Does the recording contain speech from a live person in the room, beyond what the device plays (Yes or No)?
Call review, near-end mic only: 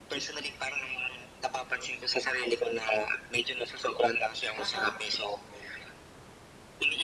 Yes